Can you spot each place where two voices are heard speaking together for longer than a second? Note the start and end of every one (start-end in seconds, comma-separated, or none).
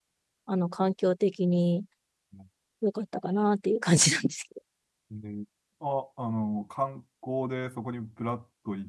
none